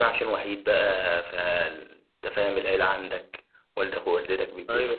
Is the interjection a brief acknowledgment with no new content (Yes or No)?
Yes